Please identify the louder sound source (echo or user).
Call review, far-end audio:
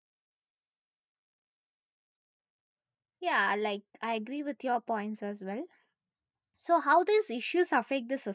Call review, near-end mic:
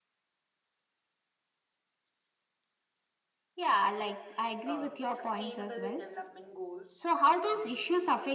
echo